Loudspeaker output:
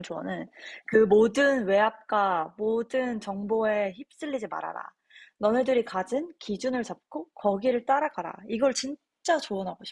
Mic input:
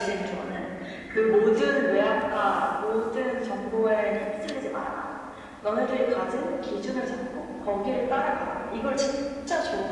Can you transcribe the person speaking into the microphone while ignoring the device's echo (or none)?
none